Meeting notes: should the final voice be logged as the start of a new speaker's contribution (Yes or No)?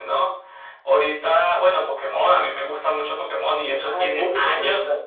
Yes